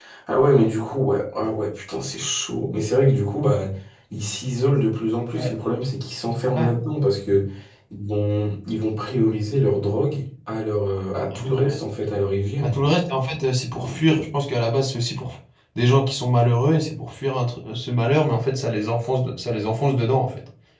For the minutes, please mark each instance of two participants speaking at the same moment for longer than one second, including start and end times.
none

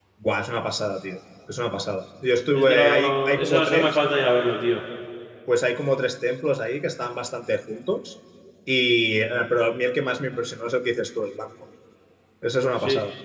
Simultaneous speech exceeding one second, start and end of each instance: 2.5-4.0

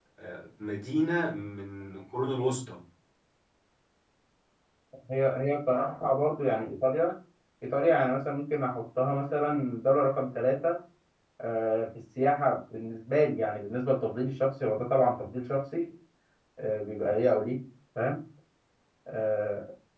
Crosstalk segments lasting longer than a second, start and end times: none

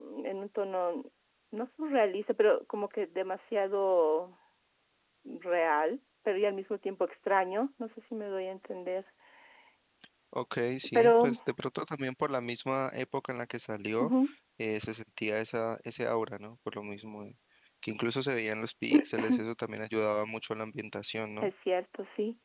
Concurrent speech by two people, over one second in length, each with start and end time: none

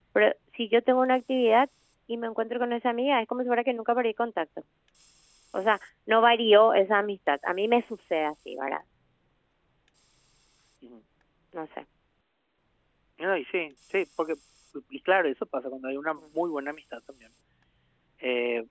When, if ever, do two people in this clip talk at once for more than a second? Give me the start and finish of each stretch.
none

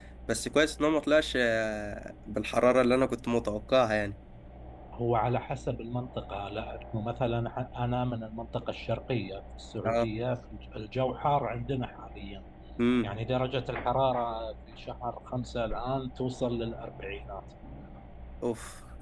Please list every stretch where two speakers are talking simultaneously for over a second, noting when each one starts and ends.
none

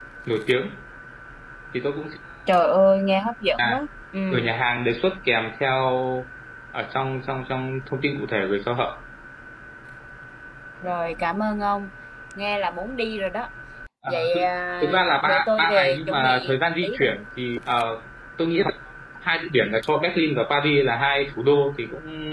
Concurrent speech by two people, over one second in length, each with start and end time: 14.8-17.1

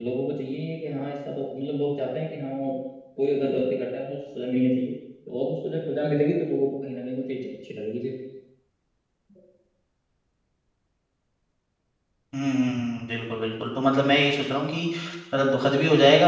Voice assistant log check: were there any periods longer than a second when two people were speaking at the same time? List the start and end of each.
none

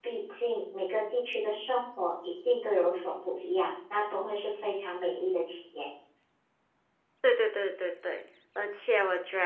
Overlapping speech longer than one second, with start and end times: none

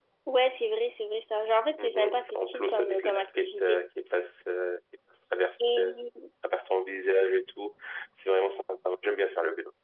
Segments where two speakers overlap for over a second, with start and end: 1.8-3.8

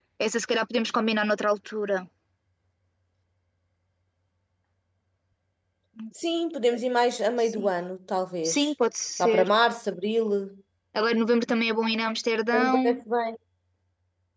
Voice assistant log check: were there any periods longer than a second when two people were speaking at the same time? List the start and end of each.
none

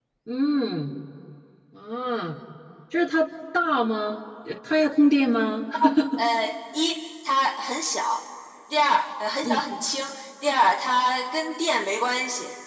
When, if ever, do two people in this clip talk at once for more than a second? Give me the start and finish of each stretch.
none

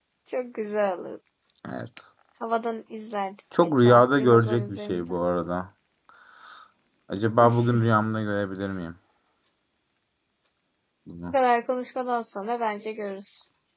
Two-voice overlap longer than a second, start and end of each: 3.6-5.1

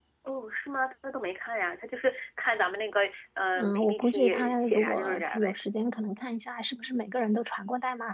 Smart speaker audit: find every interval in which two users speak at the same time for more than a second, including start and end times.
3.6-5.6

